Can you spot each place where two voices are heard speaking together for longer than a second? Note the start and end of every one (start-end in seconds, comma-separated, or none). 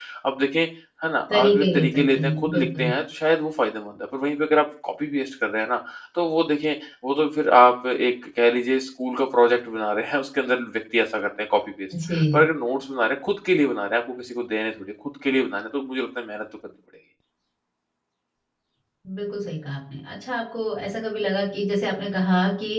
1.3-2.9